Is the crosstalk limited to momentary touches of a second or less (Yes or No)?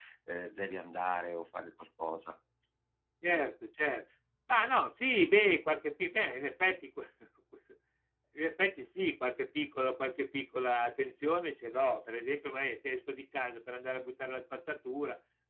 Yes